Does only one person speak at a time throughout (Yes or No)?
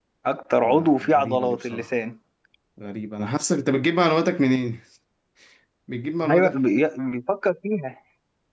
No